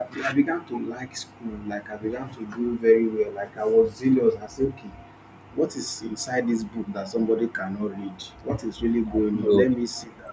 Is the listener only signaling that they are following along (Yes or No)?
Yes